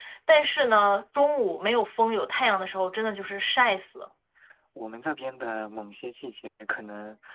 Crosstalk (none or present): none